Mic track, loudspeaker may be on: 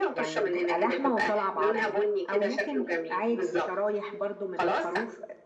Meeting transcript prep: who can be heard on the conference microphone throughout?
both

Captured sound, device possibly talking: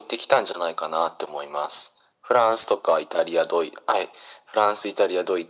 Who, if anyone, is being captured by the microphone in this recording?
echo only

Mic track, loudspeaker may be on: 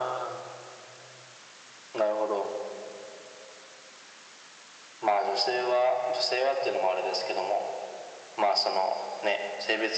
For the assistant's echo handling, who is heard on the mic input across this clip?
echo only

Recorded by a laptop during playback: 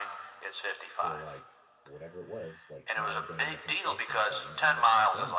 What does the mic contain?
both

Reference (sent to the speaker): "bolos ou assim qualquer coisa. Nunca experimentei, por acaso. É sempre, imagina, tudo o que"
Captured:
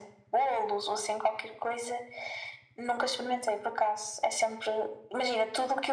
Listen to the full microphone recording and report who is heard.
echo only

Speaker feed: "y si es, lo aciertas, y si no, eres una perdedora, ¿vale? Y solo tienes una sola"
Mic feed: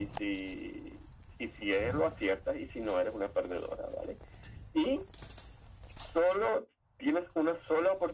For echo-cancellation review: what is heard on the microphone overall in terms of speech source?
echo only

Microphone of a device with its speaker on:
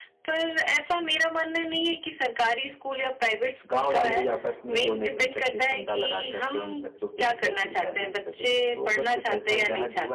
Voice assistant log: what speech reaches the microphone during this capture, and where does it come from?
both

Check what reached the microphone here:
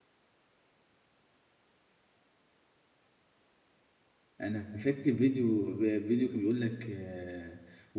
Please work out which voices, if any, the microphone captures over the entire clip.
user only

